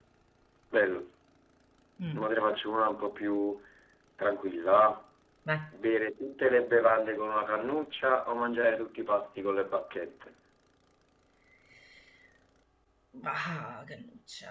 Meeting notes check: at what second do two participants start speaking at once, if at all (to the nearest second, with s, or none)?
none